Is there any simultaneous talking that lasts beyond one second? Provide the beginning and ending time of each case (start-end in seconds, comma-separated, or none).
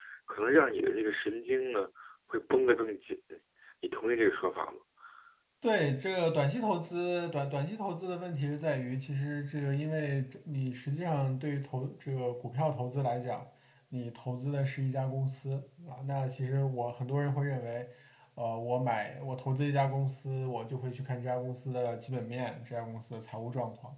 none